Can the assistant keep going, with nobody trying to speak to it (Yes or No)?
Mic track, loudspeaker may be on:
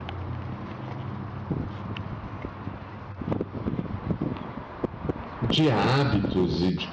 No